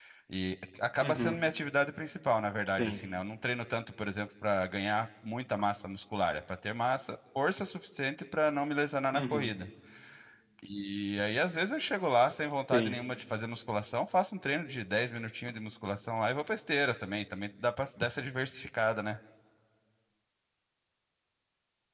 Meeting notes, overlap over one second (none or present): none